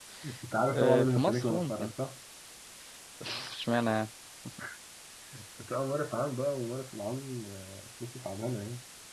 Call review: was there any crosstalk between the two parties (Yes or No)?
Yes